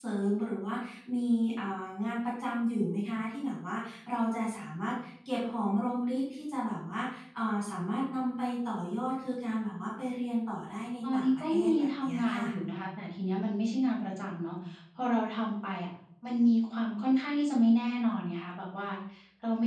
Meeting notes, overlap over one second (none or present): present